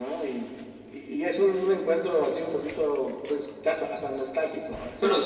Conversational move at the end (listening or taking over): taking over